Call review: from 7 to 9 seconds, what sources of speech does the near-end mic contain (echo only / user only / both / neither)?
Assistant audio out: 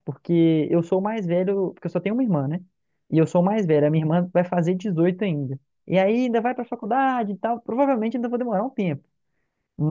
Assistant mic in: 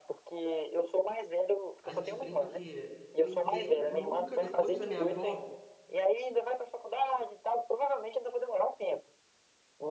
echo only